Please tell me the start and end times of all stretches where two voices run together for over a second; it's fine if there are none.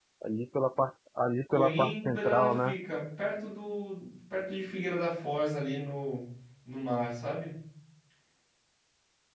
1.5-2.8

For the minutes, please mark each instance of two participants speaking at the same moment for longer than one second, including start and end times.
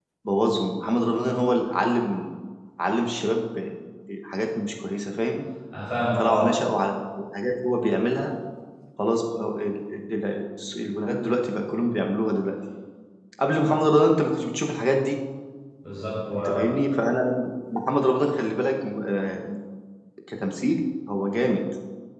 none

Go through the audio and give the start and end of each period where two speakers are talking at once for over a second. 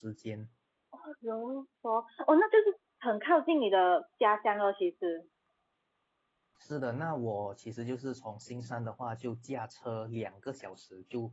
none

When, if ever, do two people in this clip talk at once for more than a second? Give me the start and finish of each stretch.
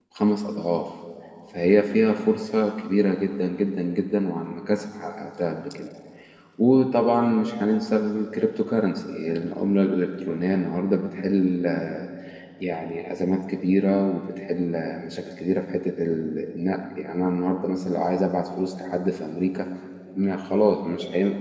none

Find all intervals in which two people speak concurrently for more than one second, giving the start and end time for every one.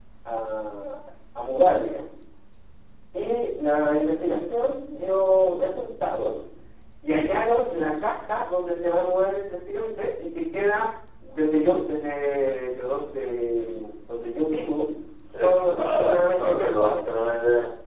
15.4-17.1

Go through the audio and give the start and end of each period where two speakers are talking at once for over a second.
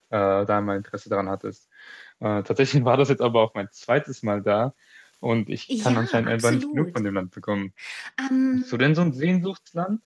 5.8-7.0

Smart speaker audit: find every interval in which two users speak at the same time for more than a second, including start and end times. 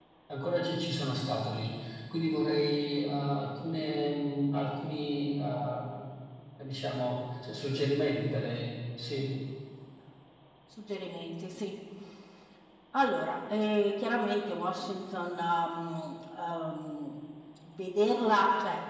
none

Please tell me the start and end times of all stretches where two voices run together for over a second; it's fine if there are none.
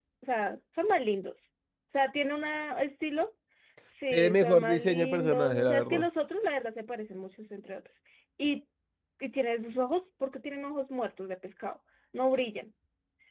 4.1-6.0

